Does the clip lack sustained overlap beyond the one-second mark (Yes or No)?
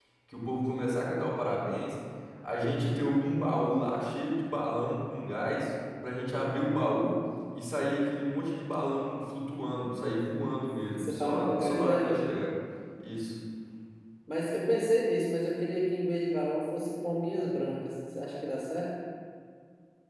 No